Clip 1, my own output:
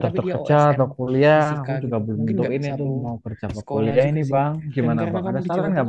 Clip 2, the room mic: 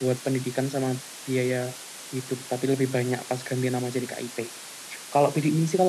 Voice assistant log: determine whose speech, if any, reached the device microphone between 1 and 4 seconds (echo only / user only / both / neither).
user only